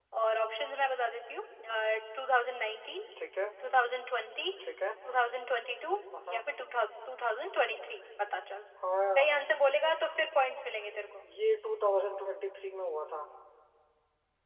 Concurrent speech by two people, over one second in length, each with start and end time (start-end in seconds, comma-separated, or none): none